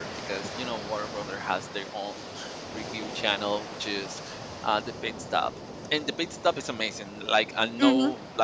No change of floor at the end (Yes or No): Yes